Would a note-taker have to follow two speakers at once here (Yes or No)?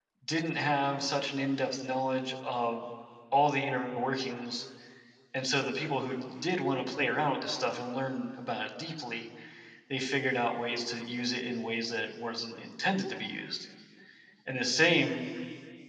No